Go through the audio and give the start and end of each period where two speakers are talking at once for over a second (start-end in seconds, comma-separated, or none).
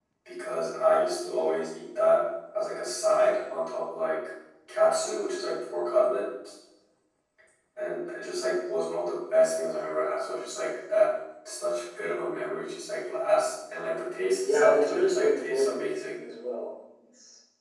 14.5-16.2